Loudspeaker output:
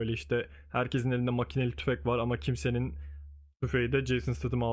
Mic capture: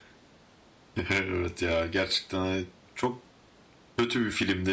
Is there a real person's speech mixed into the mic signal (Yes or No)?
Yes